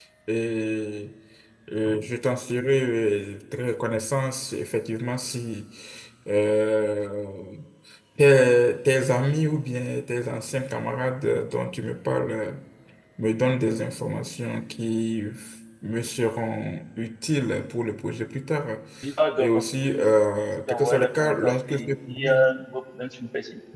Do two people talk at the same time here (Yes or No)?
Yes